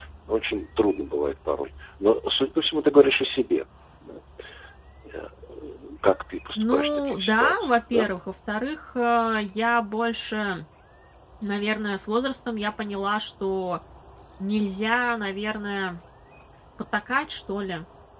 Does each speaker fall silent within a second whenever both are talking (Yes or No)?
No